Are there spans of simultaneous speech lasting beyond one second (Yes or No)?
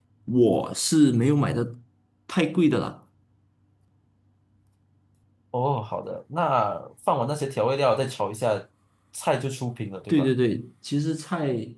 No